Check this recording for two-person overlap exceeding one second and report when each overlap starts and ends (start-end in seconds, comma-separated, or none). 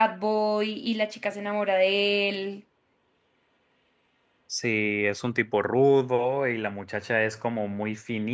none